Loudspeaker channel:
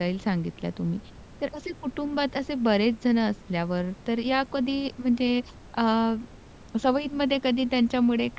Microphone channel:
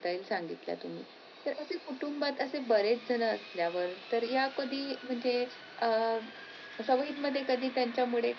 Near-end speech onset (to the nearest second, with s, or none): none